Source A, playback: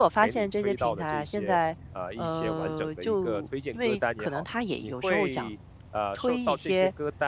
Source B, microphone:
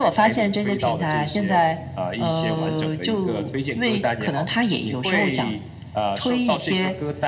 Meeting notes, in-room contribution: none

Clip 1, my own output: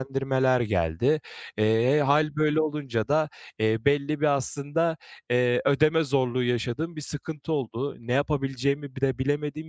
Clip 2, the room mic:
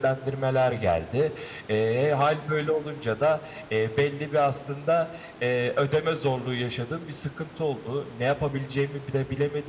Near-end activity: none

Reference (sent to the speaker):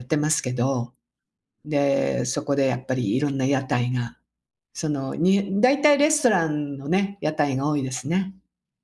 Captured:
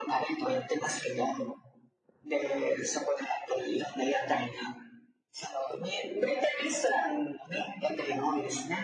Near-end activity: none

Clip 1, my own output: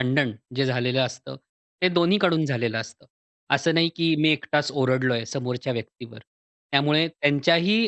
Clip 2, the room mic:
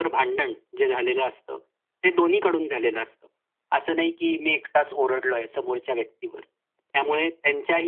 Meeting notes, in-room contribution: none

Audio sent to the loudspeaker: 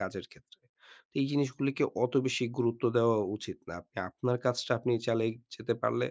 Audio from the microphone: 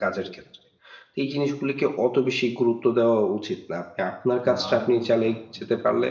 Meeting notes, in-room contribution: present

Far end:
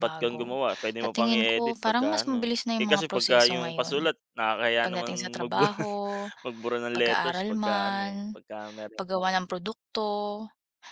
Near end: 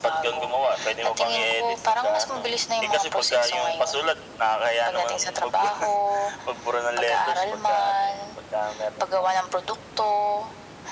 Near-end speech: none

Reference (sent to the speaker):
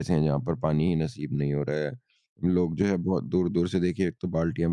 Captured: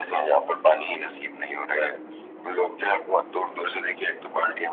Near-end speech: none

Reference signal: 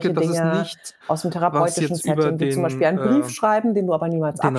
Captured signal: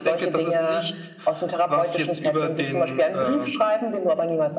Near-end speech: none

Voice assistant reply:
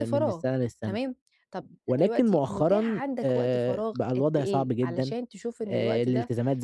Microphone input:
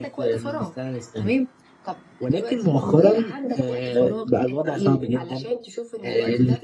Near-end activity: none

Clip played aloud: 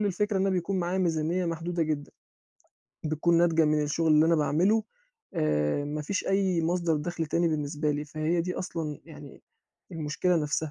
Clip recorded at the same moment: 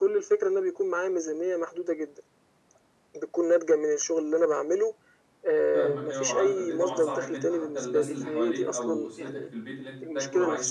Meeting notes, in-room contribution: present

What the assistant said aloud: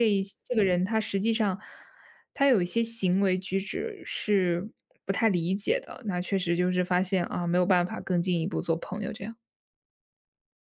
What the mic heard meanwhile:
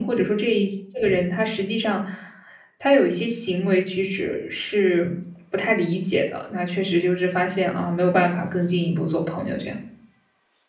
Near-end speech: none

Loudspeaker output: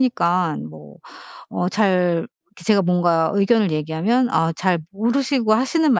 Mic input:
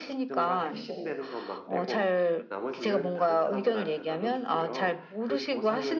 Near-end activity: present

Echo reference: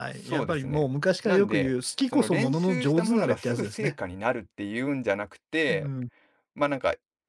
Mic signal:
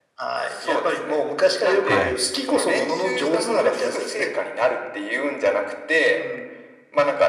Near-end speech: present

